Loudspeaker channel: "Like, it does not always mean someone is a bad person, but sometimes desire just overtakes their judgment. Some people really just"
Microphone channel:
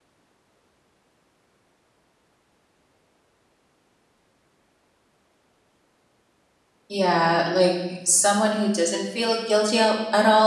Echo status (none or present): none